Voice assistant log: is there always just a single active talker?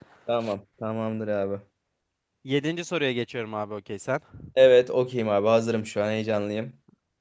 Yes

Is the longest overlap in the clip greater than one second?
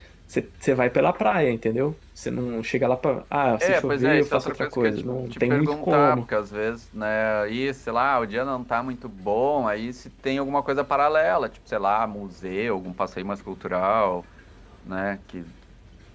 Yes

